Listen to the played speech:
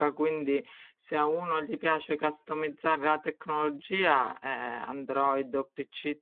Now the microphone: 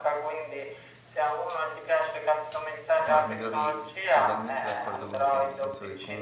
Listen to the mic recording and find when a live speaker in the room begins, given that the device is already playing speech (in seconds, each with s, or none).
3.0 s